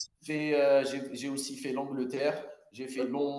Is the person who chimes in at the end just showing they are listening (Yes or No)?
Yes